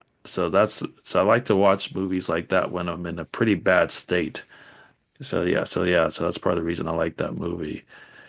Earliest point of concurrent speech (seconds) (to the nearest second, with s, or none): none